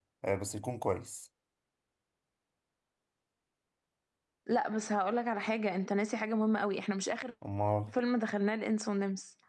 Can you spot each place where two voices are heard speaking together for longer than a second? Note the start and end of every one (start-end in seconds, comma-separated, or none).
none